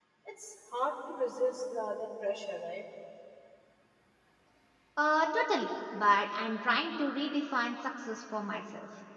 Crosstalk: none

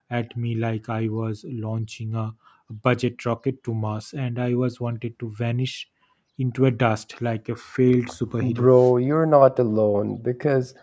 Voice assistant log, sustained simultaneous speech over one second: none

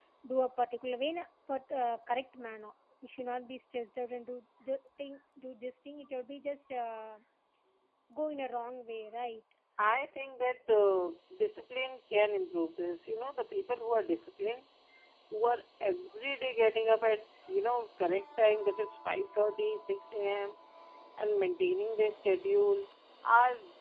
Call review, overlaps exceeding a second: none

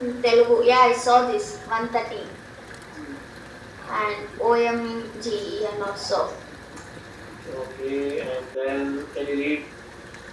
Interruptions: none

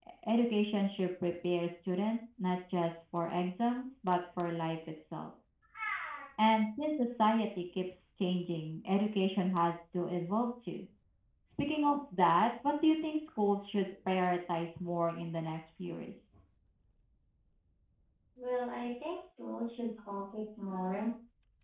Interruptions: none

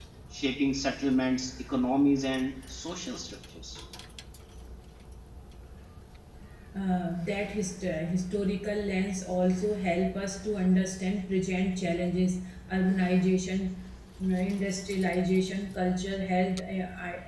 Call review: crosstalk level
none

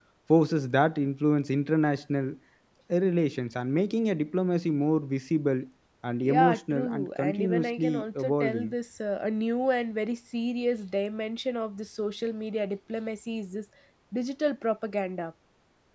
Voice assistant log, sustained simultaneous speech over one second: present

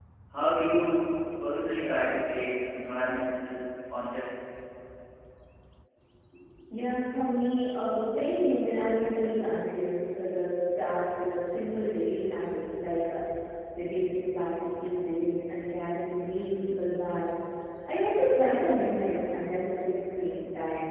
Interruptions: none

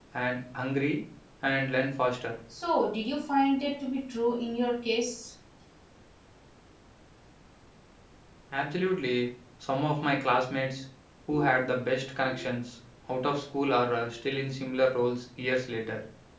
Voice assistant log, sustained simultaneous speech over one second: none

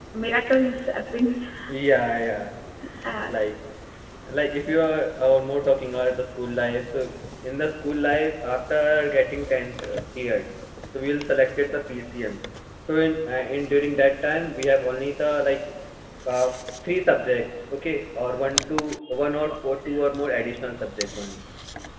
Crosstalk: none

